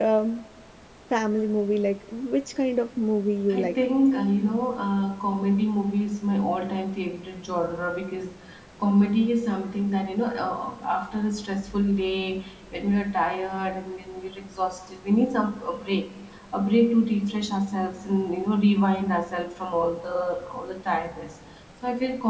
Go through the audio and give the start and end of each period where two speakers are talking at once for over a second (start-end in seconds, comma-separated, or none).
none